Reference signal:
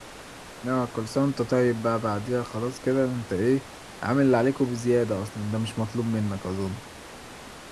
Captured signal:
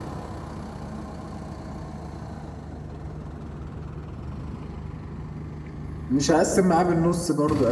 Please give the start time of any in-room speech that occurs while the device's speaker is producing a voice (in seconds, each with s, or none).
6.1 s